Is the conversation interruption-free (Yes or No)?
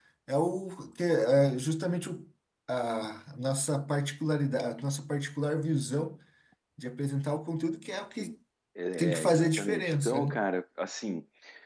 No